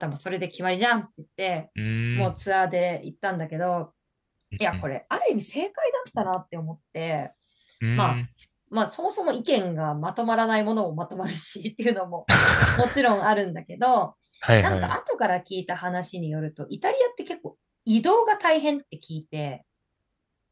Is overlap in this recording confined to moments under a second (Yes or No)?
Yes